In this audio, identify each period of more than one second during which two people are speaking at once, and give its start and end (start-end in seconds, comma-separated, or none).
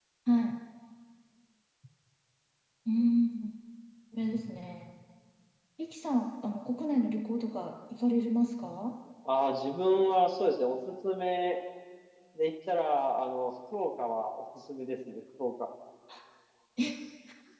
none